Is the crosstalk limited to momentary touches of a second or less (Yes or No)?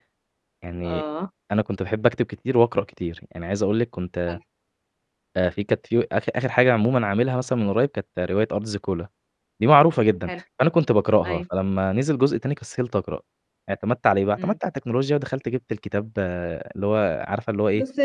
Yes